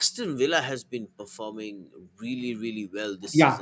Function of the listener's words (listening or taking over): taking over